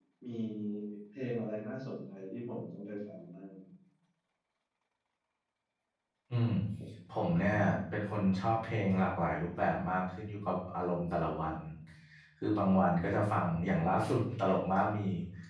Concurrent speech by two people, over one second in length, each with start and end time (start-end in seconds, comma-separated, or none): none